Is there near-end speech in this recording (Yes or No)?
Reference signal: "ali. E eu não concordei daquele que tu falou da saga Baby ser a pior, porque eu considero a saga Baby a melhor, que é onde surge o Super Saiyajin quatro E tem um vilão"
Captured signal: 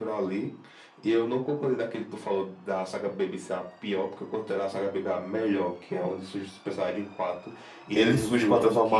Yes